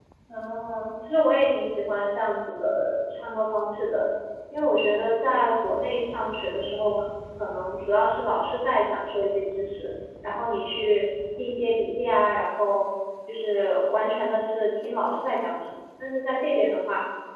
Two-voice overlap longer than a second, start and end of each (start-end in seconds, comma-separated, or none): none